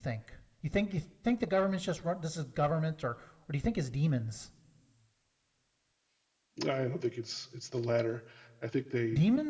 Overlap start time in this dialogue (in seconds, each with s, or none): none